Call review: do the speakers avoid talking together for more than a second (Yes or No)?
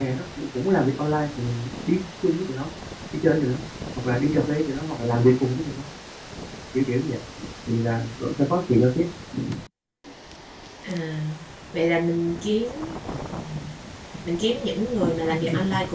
Yes